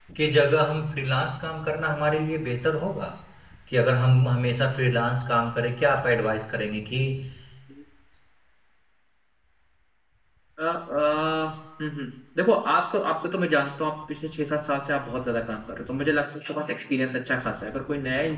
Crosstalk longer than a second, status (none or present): none